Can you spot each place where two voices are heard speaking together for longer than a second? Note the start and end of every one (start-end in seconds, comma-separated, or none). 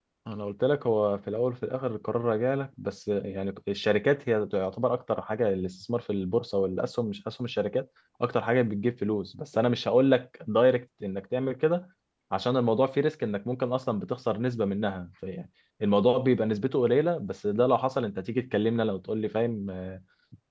none